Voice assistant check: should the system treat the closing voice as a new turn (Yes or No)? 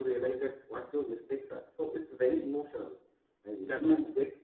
No